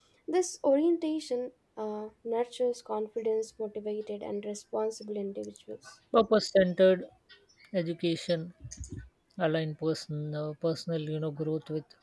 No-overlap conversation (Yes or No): Yes